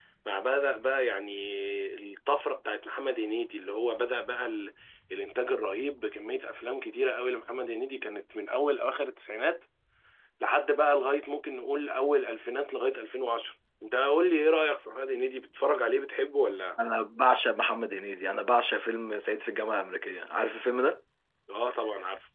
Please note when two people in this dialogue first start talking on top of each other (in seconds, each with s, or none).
none